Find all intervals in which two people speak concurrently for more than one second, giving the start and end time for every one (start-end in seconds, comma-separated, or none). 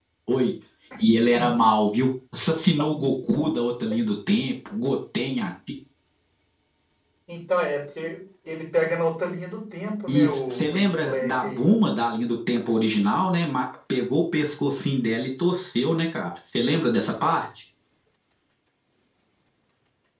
10.1-11.7